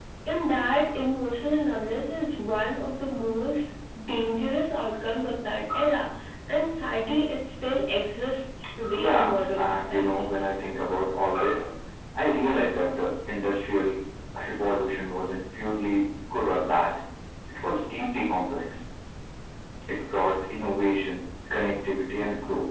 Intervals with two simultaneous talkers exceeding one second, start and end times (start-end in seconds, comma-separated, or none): 8.9-10.4